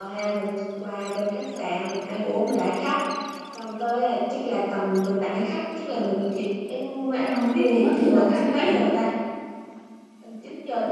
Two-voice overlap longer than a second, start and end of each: 7.3-8.8

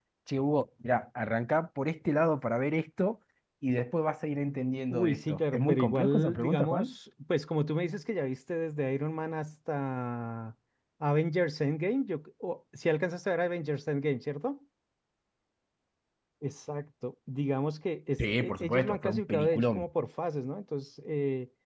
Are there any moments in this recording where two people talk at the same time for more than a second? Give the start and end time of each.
4.9-6.9, 18.2-19.9

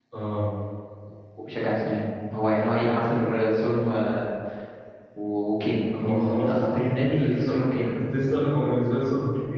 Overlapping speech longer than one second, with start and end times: 6.0-7.9

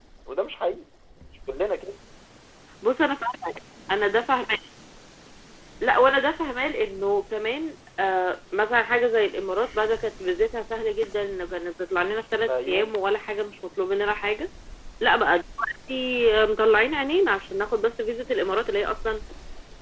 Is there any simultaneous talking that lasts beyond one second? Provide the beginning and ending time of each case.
none

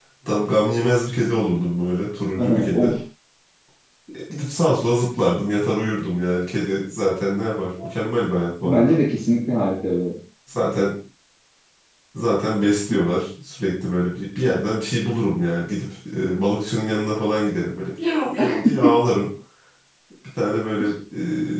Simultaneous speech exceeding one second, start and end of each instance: none

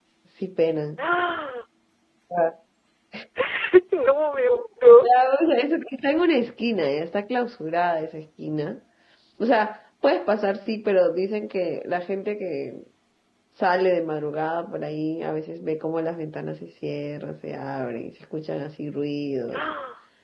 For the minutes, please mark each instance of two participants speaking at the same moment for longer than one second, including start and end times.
none

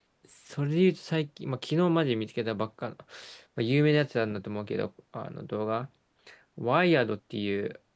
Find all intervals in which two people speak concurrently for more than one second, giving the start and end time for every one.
none

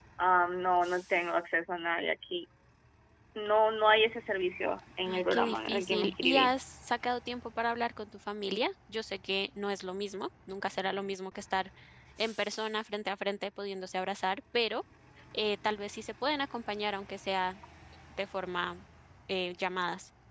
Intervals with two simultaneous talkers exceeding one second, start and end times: 5.0-6.5

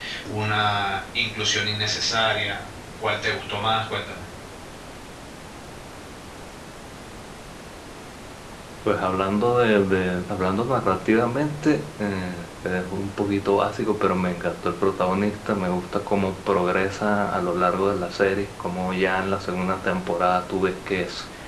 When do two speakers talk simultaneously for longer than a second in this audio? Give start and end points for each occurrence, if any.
none

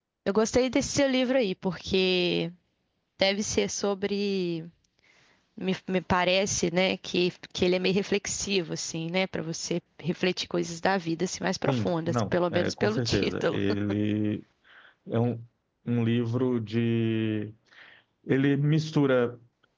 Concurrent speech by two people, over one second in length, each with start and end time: 11.7-13.6

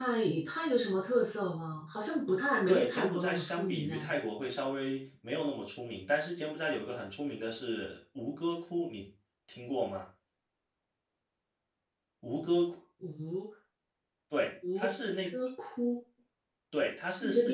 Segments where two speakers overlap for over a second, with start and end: 2.7-4.1

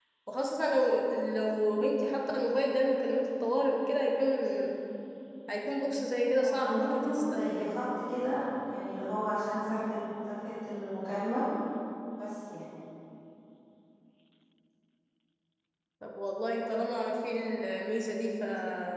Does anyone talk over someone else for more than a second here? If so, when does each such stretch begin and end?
6.4-7.7

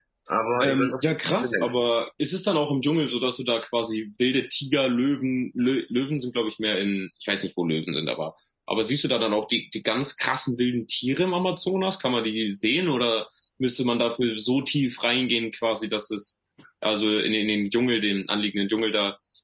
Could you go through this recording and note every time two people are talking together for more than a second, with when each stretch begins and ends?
0.6-1.8

